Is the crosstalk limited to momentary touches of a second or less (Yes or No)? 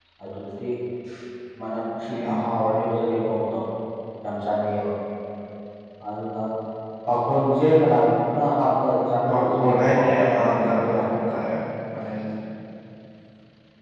No